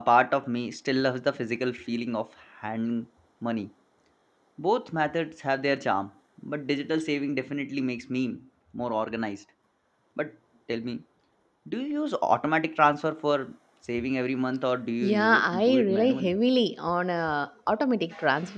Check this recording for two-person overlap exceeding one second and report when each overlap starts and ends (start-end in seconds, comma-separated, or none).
15.0-16.4